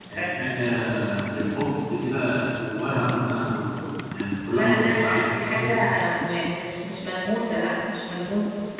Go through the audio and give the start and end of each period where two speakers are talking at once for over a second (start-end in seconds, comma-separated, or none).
4.5-5.7